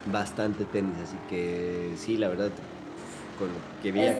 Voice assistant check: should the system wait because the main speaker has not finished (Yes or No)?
No